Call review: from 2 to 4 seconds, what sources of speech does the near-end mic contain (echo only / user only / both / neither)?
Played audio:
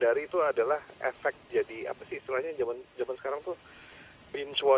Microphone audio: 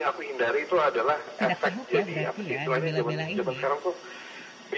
both